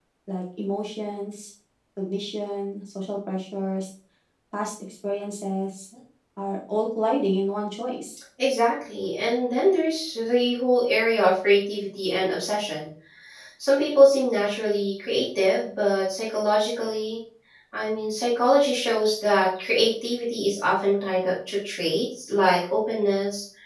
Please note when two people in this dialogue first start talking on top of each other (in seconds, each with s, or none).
none